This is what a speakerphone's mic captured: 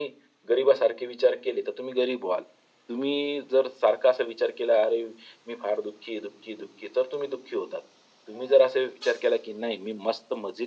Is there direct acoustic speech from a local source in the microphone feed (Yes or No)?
No